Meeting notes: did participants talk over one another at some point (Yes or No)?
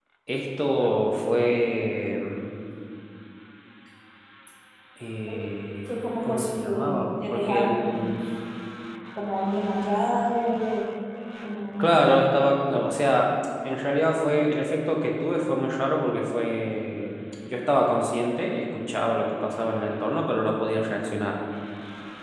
Yes